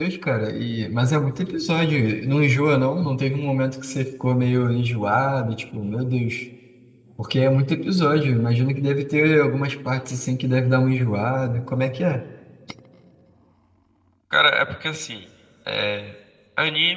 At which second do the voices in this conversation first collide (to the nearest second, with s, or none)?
none